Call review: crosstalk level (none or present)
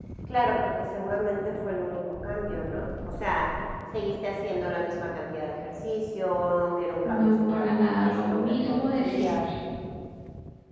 present